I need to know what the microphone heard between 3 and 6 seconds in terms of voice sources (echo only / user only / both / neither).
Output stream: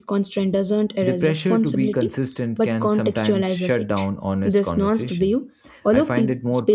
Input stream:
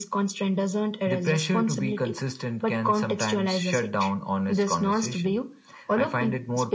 echo only